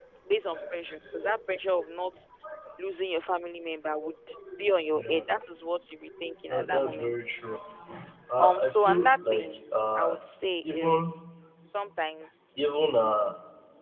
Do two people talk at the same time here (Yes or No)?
Yes